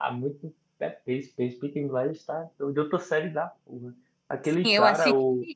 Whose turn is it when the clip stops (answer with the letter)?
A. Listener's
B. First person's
A